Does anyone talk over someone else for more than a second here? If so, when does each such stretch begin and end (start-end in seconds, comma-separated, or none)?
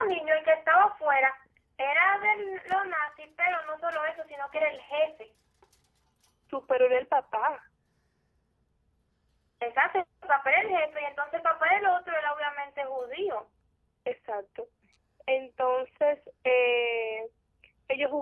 none